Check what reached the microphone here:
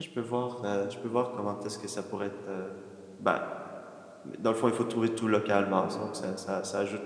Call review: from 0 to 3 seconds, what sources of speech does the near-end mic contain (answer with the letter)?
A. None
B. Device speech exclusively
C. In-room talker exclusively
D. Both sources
C